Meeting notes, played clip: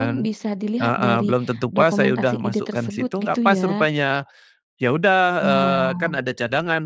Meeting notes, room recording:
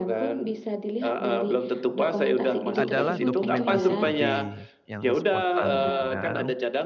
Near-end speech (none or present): present